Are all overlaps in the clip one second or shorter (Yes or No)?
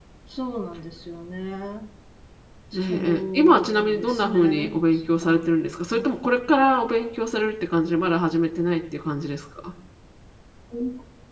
No